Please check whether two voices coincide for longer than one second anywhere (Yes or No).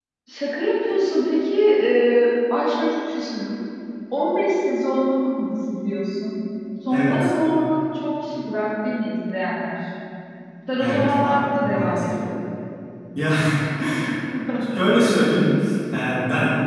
Yes